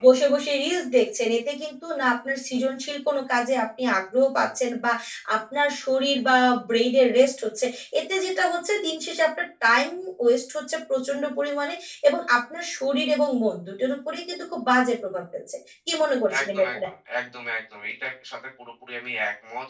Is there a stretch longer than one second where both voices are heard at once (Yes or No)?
No